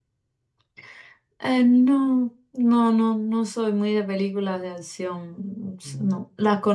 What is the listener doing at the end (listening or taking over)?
listening